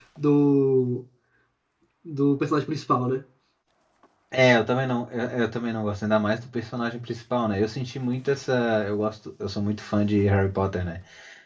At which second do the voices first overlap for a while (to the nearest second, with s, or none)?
none